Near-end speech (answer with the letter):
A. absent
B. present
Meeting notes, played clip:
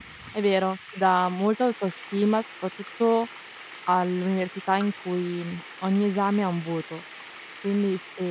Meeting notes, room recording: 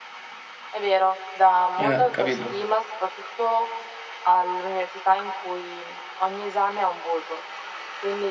B